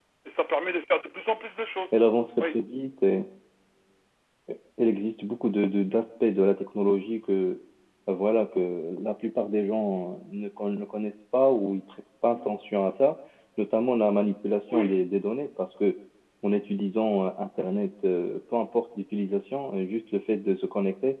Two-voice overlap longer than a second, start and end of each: none

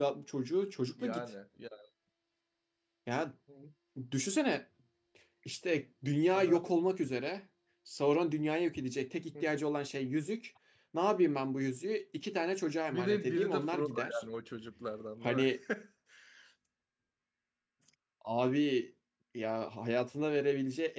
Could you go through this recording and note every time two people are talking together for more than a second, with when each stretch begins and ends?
12.9-14.2

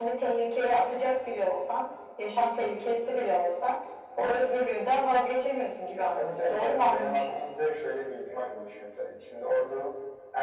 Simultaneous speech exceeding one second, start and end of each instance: 5.9-7.4

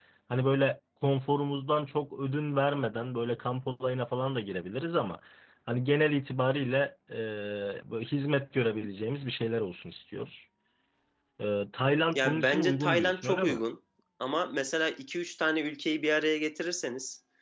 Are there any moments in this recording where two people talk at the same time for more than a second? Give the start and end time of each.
12.2-13.6

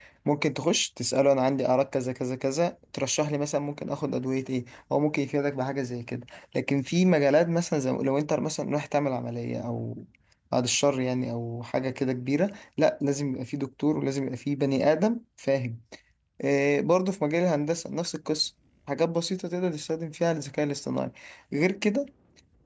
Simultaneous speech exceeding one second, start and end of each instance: none

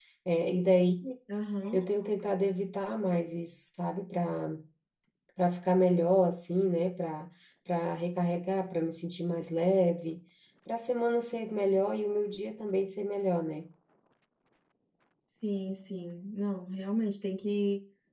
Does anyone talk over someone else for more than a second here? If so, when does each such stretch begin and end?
none

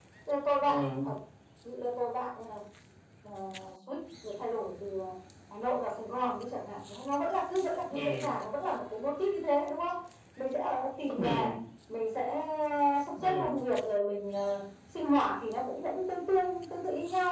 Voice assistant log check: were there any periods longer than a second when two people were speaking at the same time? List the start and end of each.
none

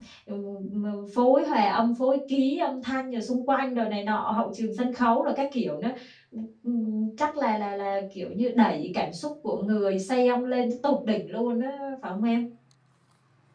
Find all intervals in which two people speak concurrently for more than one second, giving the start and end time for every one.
none

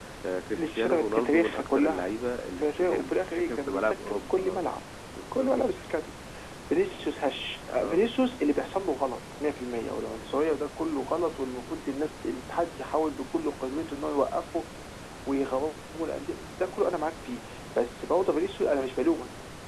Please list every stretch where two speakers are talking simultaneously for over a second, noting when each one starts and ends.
0.6-2.1, 2.5-4.6

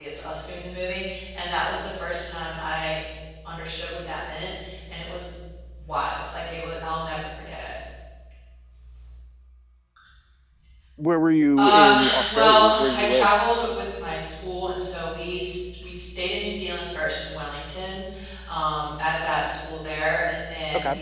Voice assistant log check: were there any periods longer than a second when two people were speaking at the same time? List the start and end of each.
11.6-13.3

